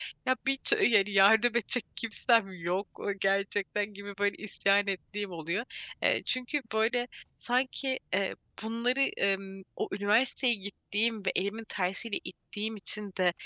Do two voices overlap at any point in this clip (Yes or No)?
No